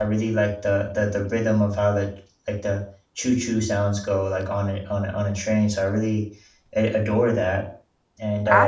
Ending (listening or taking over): taking over